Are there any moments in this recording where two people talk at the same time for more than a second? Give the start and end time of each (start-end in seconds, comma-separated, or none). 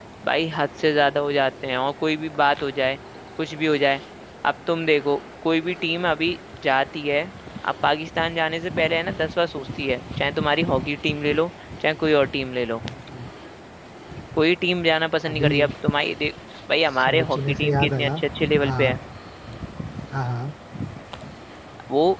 16.9-18.2